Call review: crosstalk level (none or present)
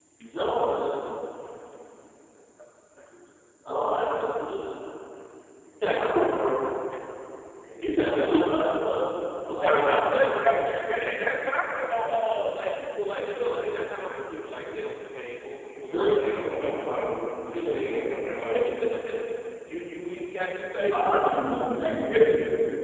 present